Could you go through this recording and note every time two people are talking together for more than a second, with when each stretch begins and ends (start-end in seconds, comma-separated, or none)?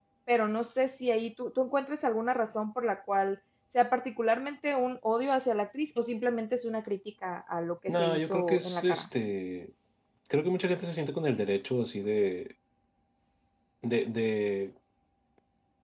7.9-9.1